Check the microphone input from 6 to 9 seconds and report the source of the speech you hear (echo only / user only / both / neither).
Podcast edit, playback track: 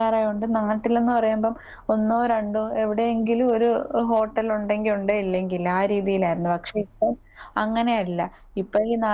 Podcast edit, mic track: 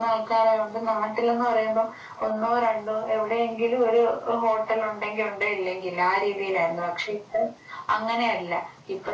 echo only